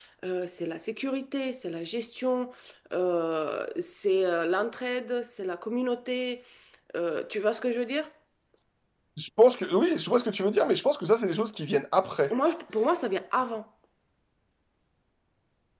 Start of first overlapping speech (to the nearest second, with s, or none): none